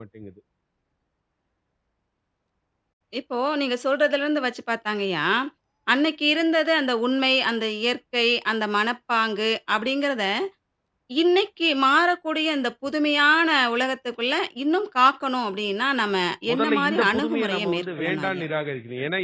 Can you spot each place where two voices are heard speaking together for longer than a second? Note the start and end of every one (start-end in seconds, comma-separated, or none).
16.5-18.4